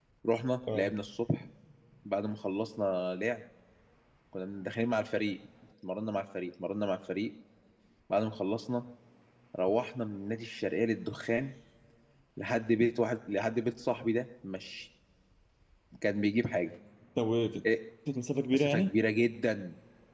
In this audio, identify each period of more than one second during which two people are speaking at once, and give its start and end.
none

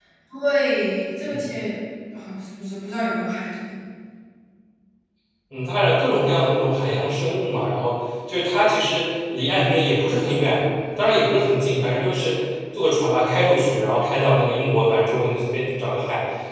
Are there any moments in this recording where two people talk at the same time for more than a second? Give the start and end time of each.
none

